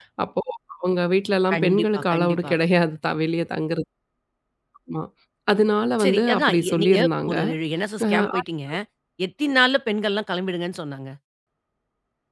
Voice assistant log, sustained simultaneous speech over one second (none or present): present